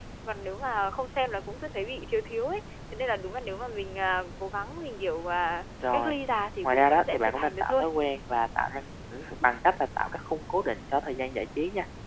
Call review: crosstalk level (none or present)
present